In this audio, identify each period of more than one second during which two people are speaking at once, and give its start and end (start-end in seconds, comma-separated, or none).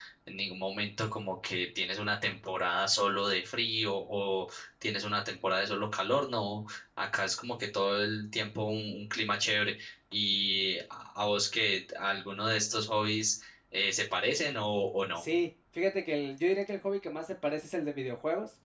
none